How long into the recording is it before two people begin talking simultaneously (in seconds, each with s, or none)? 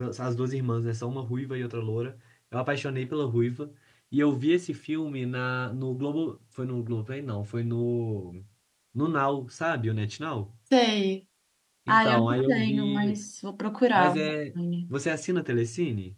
11.9 s